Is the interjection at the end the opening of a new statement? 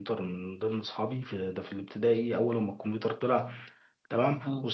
No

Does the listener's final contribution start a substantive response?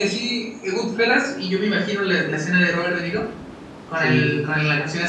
No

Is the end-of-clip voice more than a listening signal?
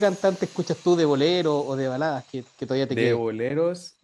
Yes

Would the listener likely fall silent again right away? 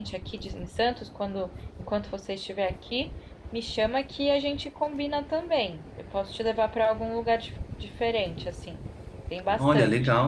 No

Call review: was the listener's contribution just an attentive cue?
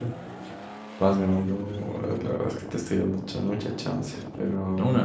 No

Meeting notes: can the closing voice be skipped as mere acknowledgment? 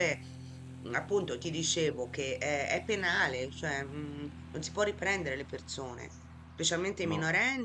Yes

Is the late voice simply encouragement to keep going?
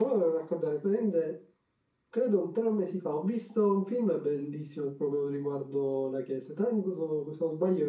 Yes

